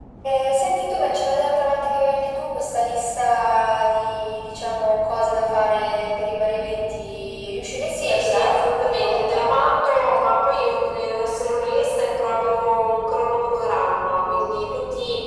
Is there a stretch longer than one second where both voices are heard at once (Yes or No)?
Yes